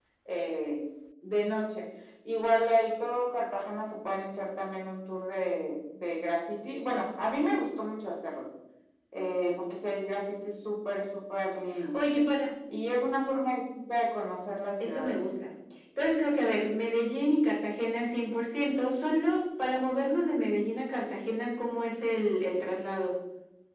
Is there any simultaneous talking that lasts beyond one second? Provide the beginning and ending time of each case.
none

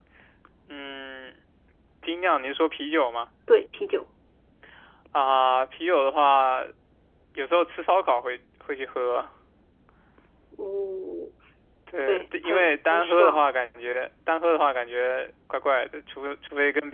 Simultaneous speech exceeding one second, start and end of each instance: 12.0-13.4

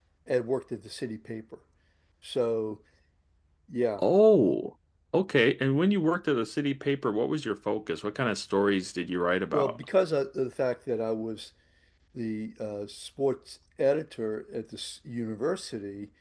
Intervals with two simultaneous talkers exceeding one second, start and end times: none

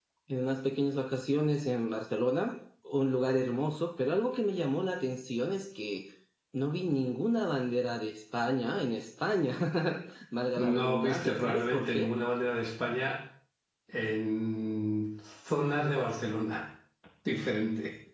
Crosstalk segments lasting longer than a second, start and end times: 10.6-12.1

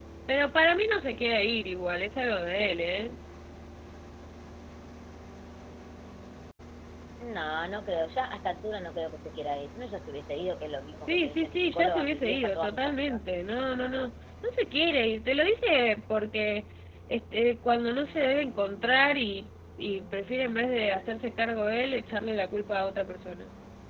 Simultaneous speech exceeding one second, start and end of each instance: 11.0-13.2

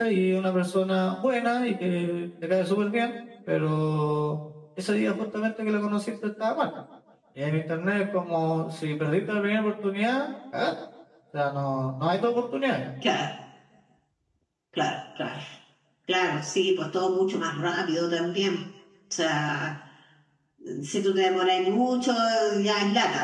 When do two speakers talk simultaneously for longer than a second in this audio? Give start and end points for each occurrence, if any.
none

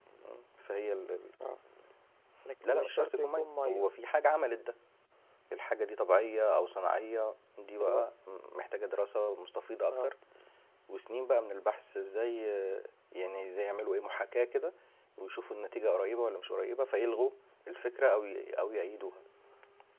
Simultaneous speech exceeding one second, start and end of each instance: 2.6-3.9

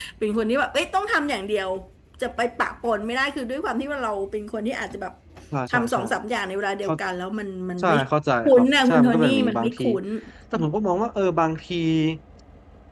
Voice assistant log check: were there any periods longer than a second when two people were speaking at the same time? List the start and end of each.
8.4-9.8

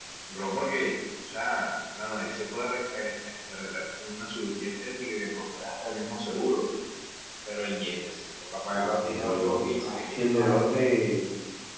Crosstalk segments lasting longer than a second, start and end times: 8.8-10.6

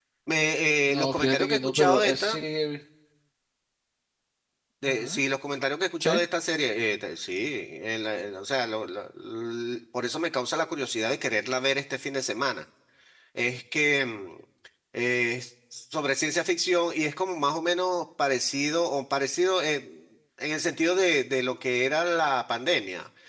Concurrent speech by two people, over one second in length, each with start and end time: 0.9-2.4

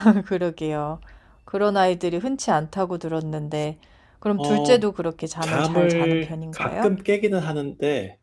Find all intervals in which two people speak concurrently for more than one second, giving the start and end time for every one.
5.4-6.9

